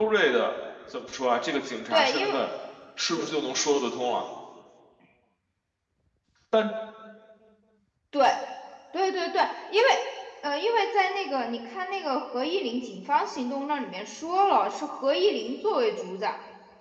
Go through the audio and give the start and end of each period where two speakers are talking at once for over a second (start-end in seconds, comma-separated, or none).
none